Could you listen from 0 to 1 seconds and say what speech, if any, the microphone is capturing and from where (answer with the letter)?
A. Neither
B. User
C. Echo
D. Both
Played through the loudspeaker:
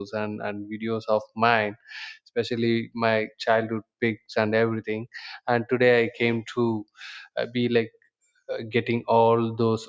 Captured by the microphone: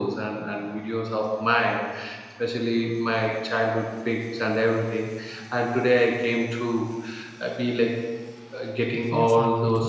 C